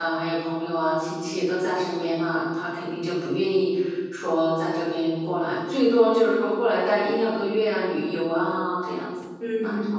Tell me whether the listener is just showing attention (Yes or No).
No